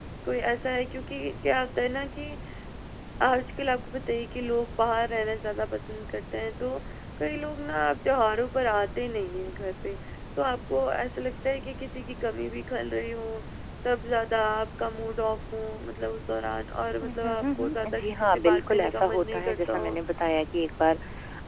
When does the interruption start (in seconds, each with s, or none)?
17.0 s